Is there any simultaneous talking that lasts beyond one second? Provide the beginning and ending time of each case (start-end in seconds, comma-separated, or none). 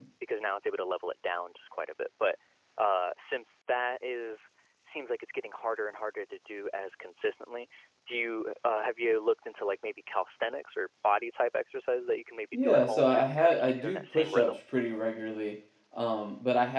12.5-14.6